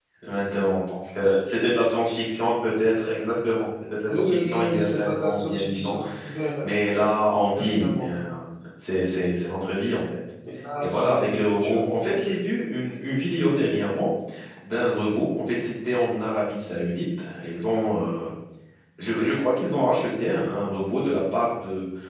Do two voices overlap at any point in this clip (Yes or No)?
Yes